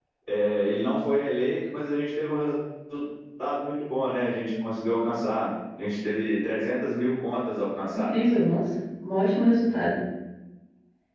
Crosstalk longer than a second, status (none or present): none